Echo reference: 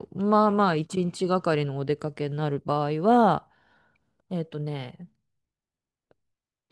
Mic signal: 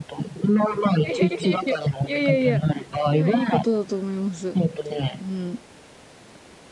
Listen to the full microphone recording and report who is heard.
both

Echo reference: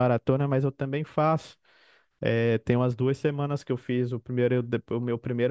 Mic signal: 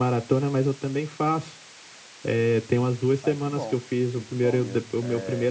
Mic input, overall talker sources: both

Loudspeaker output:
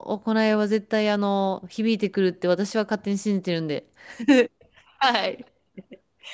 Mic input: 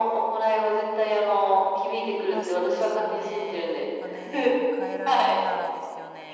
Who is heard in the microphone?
both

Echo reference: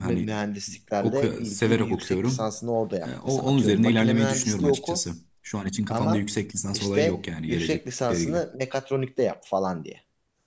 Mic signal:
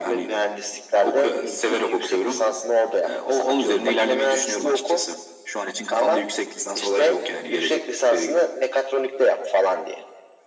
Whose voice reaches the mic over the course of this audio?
echo only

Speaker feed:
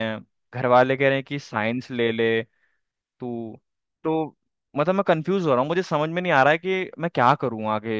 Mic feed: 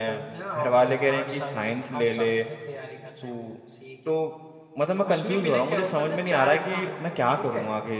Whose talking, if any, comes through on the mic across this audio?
both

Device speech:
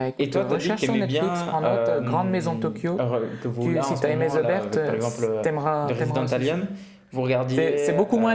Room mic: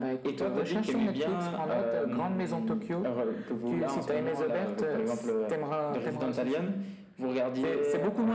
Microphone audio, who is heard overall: echo only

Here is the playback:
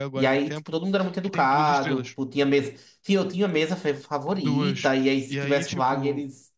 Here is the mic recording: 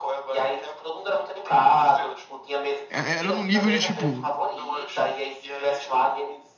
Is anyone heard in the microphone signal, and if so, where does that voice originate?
both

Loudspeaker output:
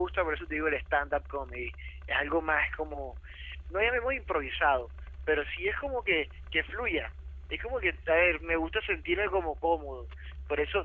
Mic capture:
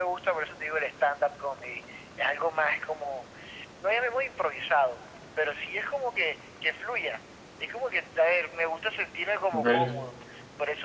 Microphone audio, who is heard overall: both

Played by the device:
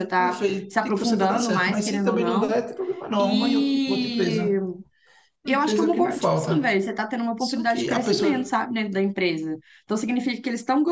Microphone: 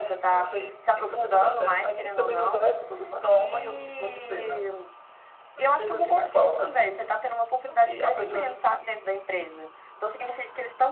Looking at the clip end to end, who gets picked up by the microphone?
echo only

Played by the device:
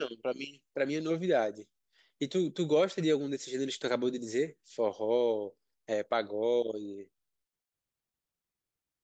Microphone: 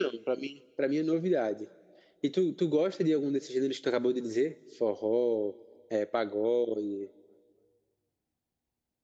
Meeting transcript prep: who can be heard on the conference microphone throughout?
echo only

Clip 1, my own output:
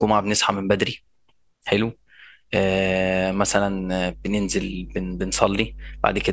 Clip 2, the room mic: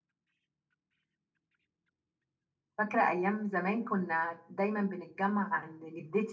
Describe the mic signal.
user only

